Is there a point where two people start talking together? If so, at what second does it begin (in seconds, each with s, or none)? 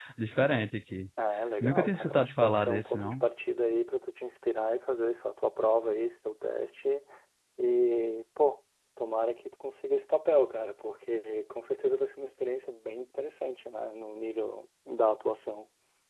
1.6 s